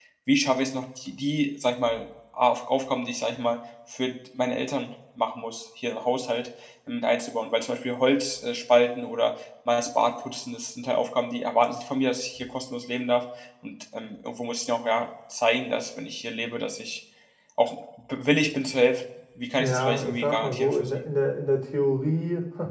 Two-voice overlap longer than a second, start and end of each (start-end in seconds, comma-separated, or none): 19.6-21.0